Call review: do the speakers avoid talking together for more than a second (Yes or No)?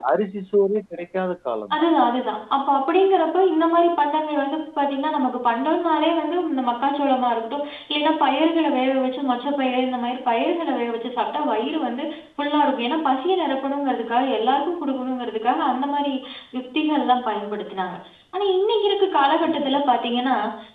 Yes